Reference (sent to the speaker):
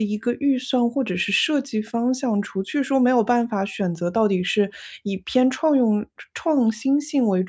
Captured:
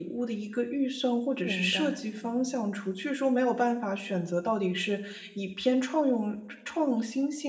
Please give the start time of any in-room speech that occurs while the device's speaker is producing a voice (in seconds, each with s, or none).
1.4 s